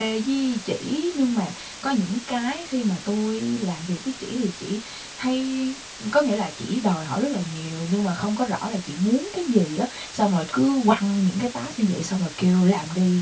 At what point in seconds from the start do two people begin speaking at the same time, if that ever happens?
none

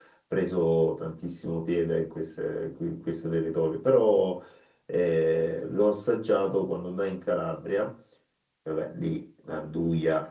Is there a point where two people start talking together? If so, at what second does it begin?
none

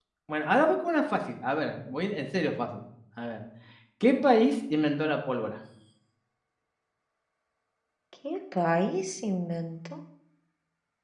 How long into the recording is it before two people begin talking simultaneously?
none

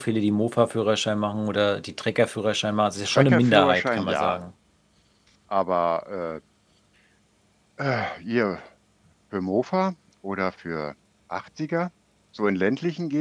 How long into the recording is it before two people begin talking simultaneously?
3.0 s

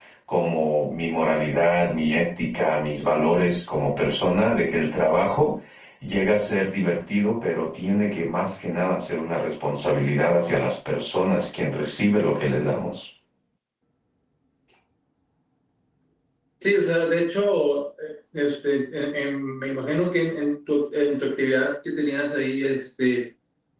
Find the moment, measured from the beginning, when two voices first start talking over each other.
none

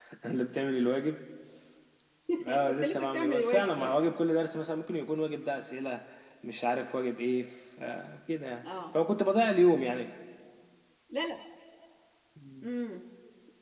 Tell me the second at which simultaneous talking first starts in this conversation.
2.7 s

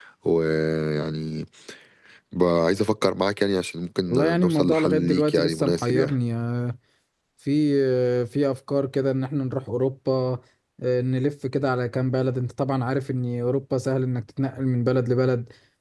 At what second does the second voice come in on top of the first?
4.1 s

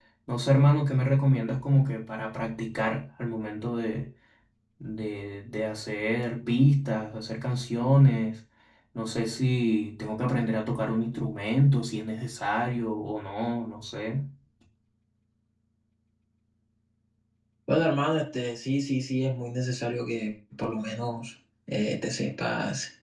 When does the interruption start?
none

